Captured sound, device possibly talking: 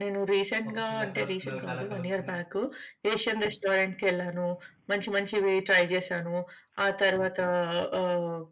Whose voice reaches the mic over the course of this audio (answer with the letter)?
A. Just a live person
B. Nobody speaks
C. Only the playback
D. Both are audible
D